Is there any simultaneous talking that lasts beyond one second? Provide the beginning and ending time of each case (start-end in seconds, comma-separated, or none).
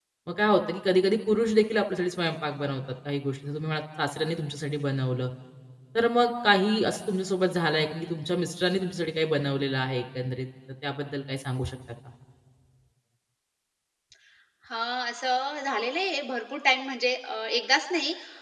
none